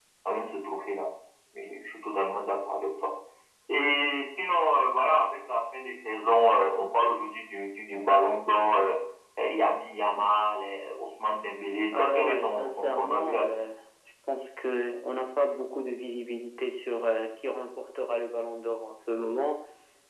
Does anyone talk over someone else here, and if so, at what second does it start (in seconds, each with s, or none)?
11.9 s